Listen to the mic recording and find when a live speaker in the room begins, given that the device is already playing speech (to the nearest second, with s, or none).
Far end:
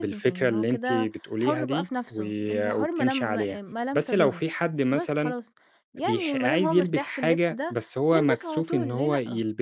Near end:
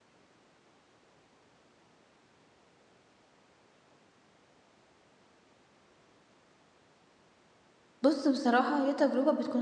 8 s